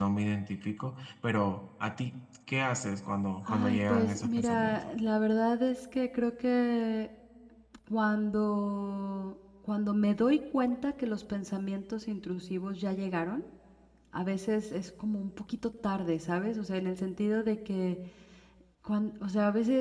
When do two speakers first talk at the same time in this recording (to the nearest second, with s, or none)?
3 s